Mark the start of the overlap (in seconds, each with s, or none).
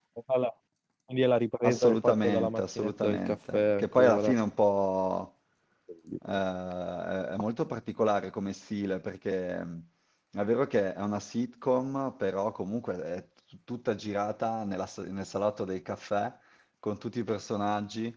1.6 s